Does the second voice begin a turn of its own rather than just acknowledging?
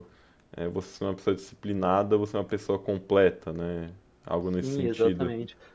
Yes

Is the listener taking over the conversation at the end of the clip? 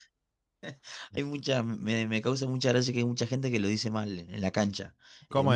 No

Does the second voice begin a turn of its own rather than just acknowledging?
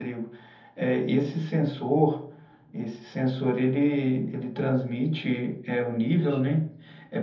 No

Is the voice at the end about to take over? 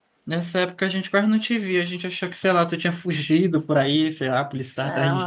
Yes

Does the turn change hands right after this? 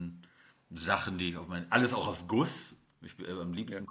No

